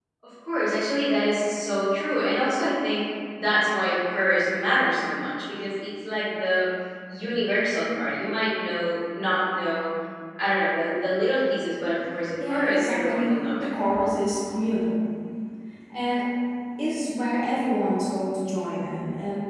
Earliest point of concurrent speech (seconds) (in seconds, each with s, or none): 12.4 s